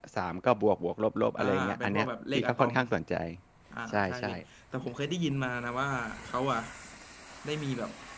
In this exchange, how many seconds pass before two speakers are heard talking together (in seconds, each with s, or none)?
1.4 s